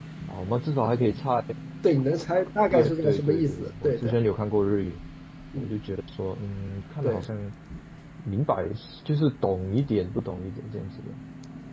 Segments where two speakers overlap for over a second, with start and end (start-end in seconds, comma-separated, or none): 2.7-4.2